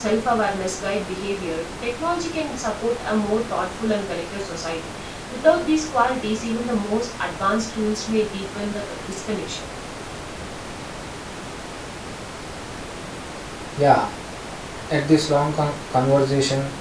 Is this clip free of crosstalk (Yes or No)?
Yes